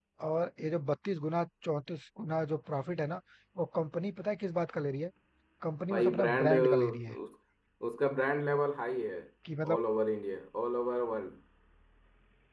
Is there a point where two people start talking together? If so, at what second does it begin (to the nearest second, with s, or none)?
6 s